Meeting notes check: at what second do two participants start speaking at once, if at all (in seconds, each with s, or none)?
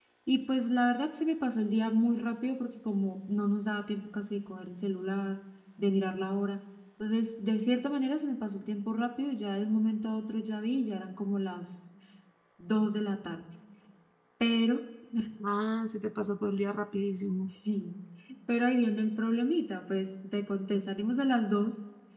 none